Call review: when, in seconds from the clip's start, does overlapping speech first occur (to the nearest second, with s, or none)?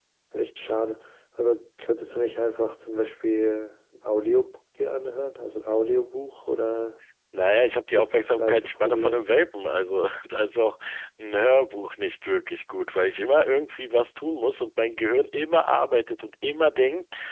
8 s